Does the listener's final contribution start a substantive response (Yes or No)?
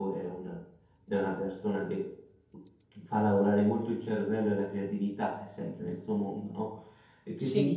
No